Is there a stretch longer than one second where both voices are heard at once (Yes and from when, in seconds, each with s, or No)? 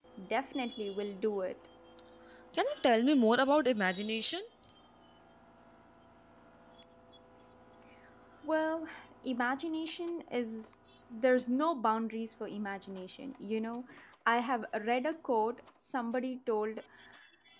No